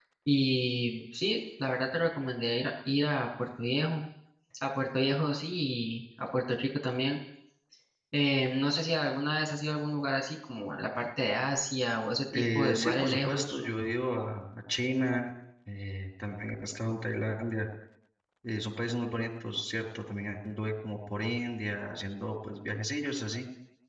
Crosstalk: present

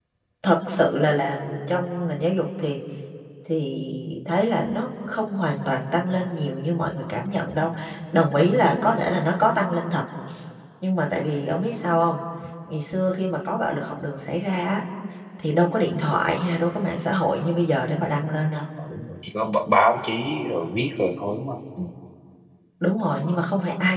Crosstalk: none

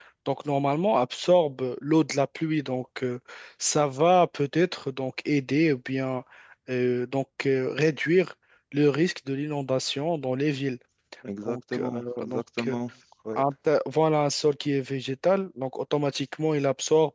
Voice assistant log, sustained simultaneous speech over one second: present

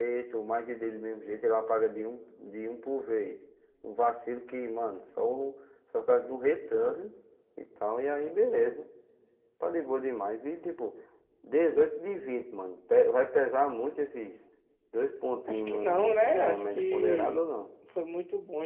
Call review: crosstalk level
present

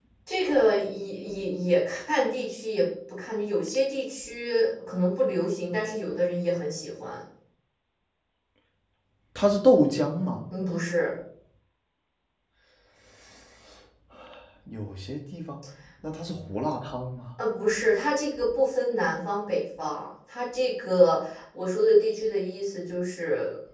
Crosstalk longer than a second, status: none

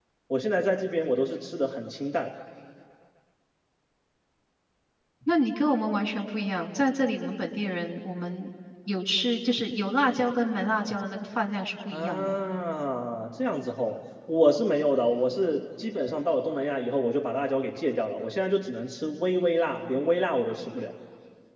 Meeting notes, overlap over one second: none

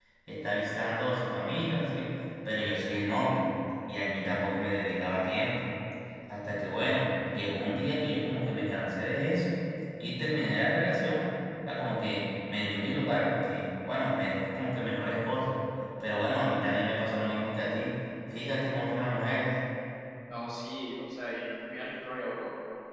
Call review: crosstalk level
none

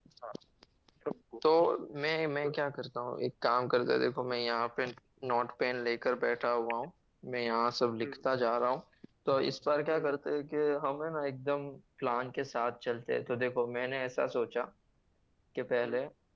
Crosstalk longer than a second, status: none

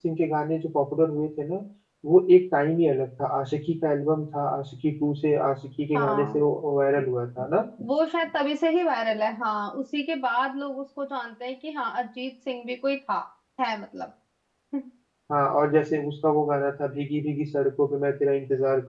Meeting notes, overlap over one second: none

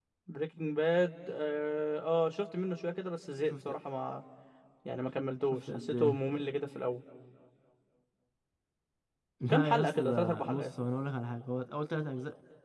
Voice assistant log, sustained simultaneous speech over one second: present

